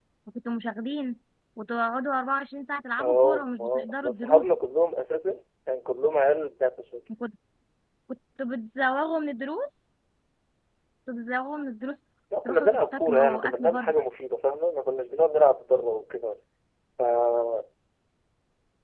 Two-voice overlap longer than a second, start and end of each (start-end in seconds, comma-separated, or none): 3.0-4.4, 12.4-14.0